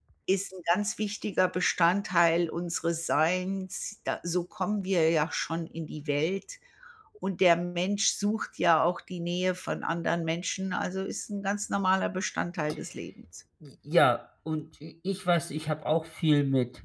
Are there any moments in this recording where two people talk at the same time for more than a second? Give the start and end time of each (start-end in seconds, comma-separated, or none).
none